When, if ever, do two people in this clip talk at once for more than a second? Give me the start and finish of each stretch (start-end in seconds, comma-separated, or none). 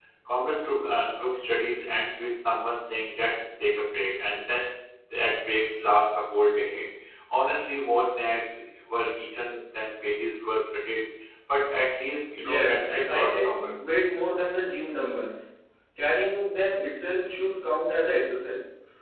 12.4-13.7